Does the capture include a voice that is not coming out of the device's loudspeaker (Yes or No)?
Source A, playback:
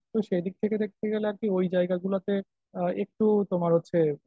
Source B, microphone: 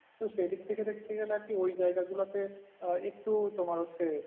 No